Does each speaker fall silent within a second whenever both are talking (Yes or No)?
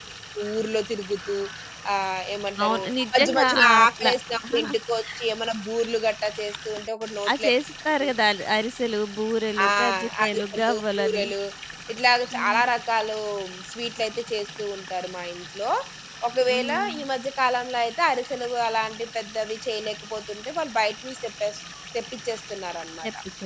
No